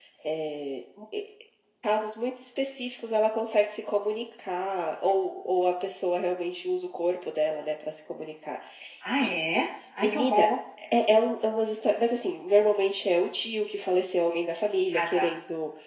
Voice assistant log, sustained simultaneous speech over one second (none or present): none